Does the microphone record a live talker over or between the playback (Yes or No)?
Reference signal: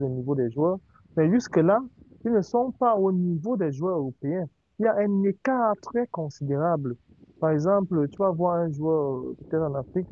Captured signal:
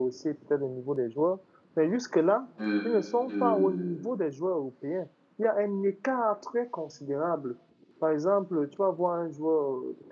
Yes